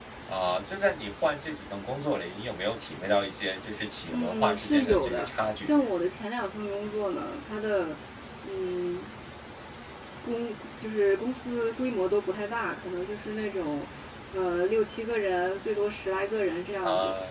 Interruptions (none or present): present